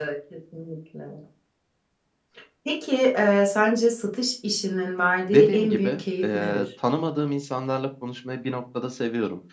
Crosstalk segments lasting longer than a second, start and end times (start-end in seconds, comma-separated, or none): 5.3-6.7